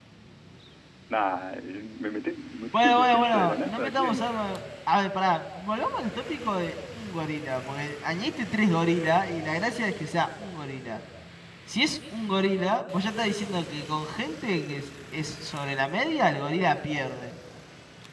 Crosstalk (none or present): present